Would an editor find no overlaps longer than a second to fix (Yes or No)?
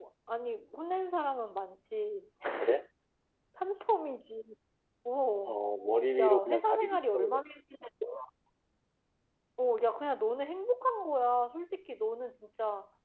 No